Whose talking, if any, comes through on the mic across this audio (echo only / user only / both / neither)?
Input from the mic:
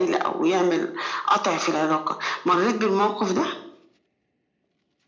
echo only